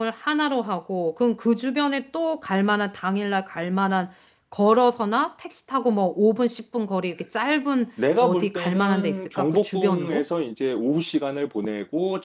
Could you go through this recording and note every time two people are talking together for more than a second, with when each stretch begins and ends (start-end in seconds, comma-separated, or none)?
8.2-10.2